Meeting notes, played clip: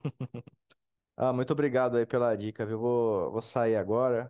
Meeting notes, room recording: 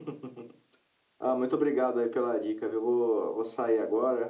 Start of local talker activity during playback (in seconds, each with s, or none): none